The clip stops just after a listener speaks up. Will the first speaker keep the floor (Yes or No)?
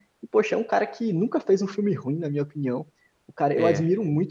Yes